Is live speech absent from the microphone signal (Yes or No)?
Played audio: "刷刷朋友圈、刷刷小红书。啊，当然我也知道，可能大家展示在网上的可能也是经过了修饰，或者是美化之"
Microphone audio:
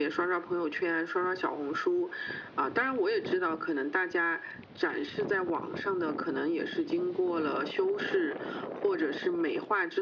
Yes